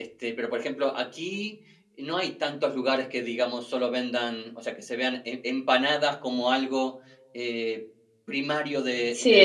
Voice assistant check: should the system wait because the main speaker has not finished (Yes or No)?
No